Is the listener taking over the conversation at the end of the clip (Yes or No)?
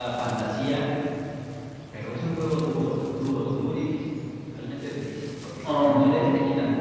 No